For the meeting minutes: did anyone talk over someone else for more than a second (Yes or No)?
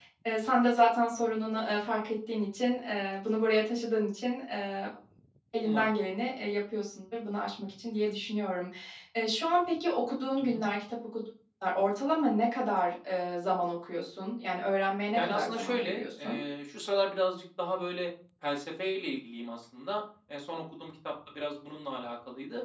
Yes